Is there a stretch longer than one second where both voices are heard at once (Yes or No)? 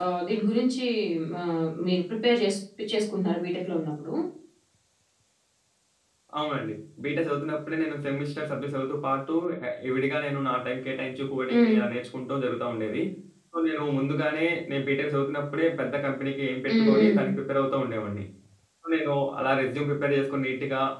No